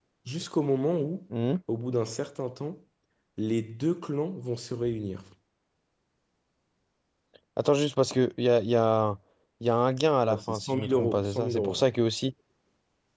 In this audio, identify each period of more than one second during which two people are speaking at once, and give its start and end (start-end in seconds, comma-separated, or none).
10.2-11.9